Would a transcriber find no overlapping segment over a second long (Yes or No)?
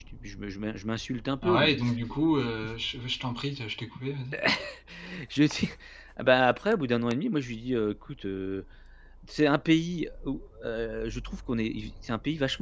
Yes